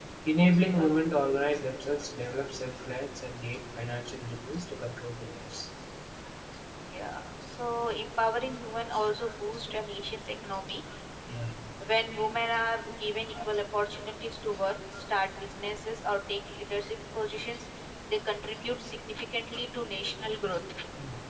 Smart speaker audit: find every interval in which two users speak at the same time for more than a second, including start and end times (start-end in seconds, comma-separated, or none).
none